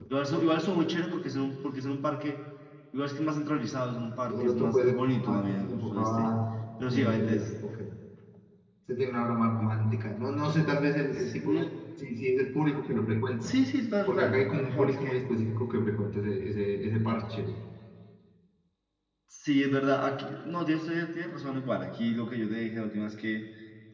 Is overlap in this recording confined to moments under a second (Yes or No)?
No